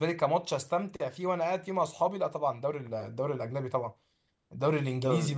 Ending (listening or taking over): listening